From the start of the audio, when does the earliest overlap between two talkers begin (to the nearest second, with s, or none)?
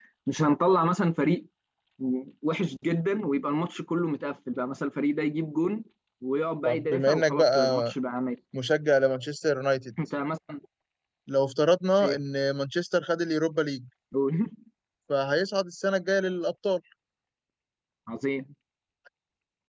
7 s